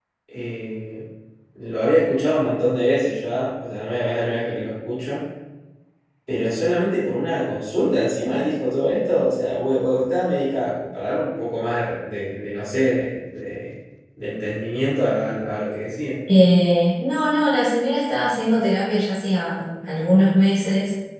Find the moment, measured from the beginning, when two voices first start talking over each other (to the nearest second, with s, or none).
none